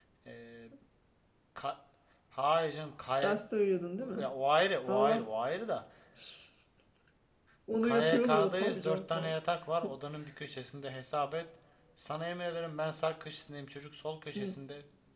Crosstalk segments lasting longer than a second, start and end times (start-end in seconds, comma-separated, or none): 7.8-9.3